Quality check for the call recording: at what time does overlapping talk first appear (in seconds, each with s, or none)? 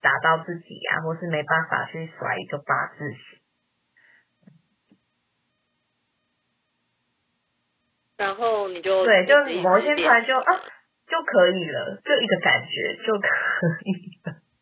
9.0 s